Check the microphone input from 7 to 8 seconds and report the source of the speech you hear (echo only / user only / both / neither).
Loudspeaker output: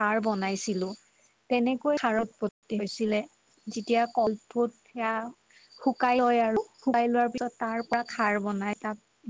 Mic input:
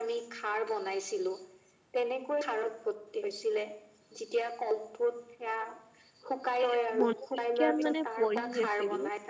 both